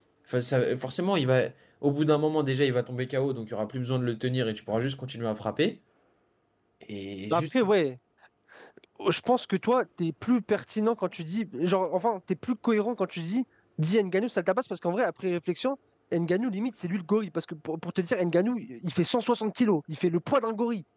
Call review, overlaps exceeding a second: none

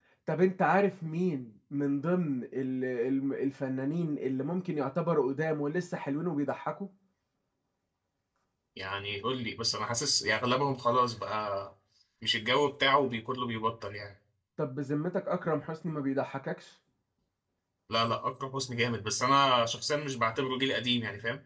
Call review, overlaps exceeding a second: none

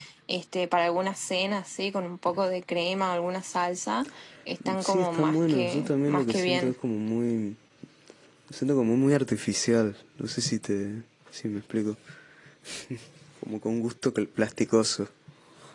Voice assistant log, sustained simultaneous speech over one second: present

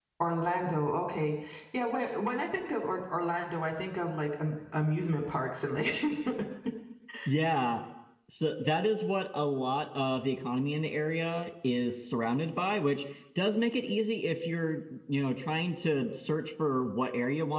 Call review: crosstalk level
none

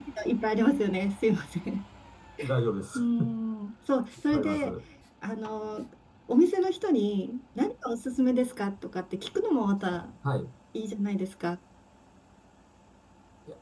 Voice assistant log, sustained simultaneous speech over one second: none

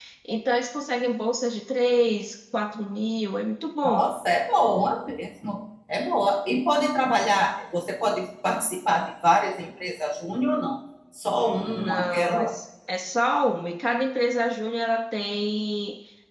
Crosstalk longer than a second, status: present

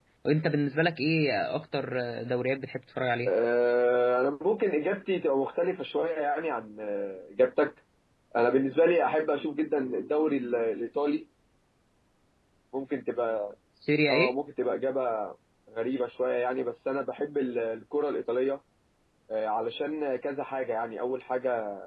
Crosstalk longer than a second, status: none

